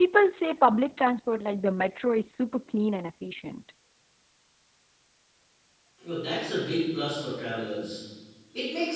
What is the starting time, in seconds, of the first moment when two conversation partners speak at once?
none

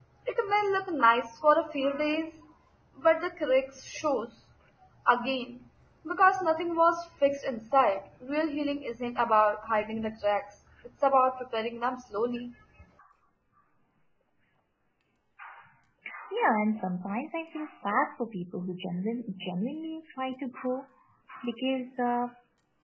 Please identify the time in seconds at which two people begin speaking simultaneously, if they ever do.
none

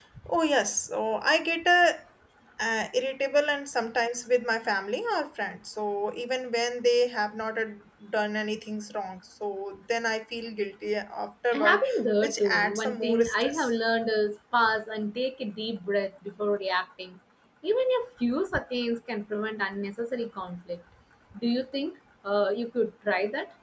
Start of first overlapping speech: 11.5 s

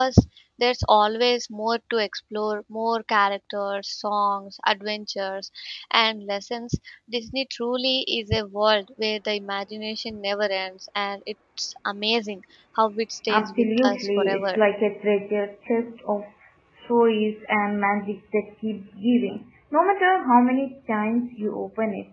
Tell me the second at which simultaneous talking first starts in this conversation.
13.3 s

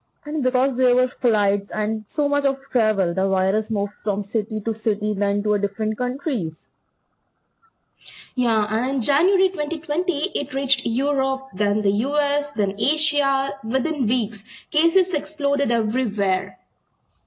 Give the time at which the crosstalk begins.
none

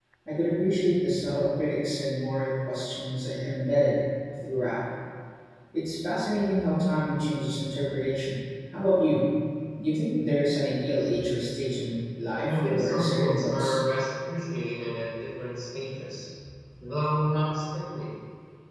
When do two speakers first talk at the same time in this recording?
12.5 s

